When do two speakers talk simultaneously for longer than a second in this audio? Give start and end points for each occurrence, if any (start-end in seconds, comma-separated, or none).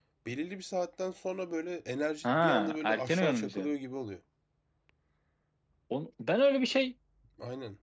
2.2-3.7